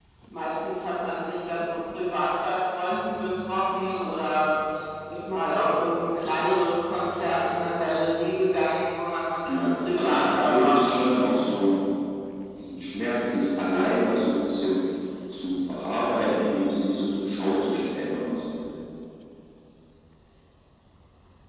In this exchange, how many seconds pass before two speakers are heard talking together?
9.5 s

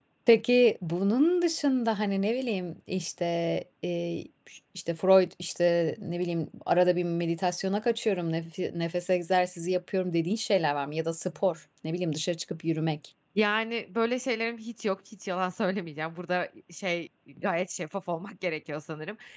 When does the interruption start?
none

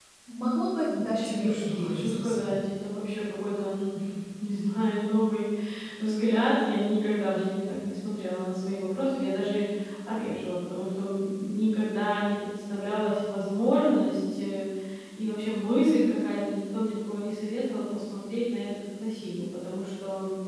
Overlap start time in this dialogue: 0.8 s

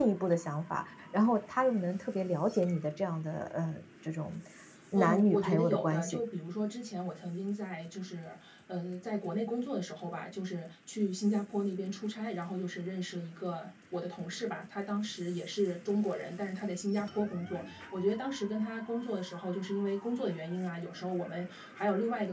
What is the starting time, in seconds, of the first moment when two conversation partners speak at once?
4.9 s

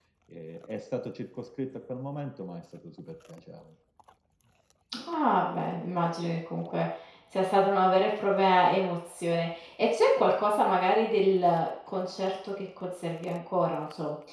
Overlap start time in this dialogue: none

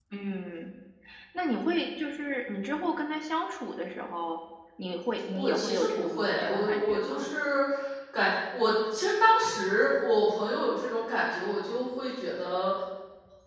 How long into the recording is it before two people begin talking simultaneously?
5.3 s

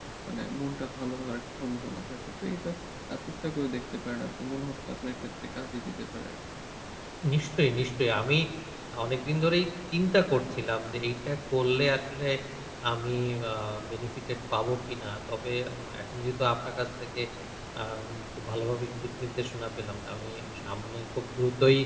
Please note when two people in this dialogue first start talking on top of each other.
none

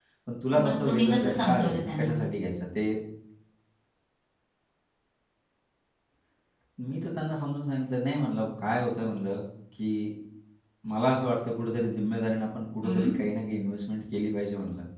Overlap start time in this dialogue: 0.5 s

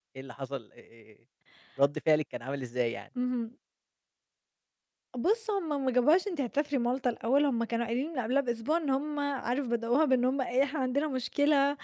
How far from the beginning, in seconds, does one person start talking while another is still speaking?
none

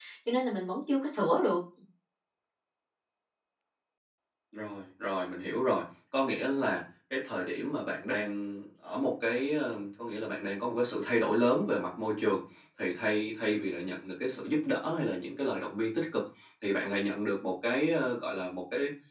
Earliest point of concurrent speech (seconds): none

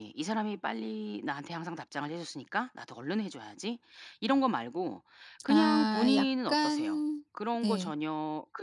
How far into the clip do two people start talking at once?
5.5 s

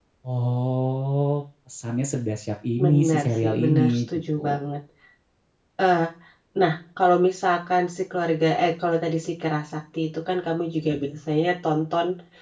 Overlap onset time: 2.8 s

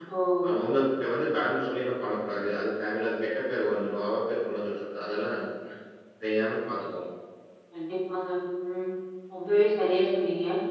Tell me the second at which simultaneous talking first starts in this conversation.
none

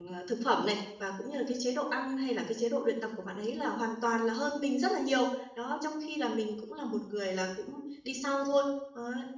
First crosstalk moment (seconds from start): none

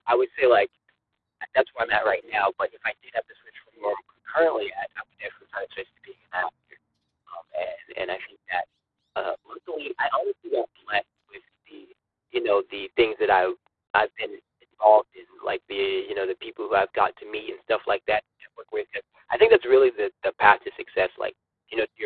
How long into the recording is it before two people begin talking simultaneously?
none

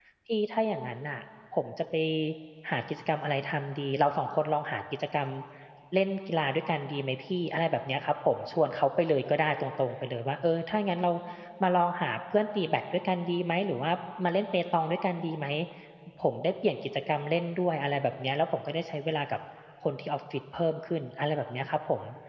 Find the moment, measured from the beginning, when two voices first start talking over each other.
none

